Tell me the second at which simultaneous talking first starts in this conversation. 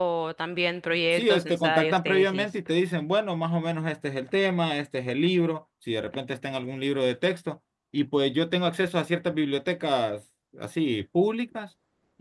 1.1 s

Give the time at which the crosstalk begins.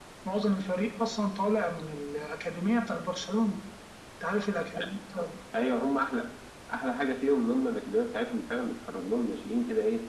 none

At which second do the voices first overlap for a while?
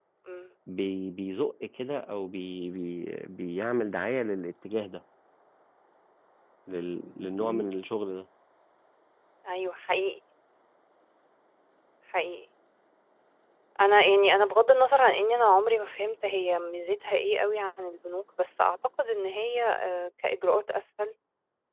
none

